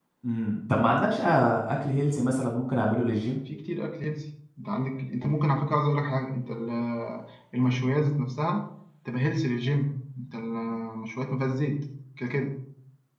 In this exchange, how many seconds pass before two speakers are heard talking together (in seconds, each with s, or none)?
none